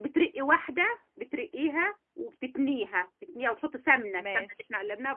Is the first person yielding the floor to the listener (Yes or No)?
No